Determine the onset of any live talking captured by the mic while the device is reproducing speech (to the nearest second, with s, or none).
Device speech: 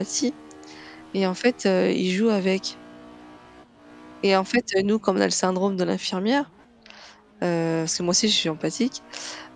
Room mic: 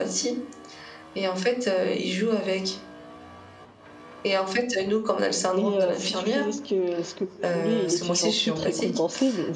6 s